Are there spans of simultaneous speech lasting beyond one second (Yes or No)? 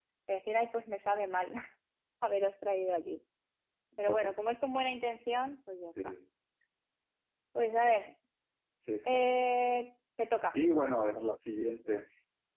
No